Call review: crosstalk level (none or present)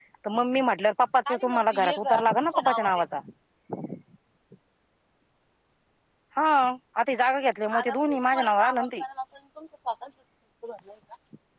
present